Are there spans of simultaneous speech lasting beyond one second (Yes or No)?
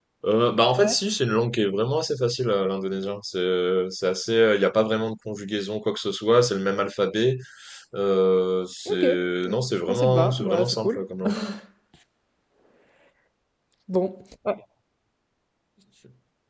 Yes